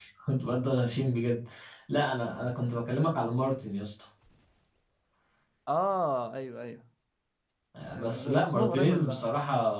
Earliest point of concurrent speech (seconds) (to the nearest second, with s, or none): 8 s